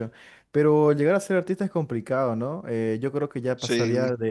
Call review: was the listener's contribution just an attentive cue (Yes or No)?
Yes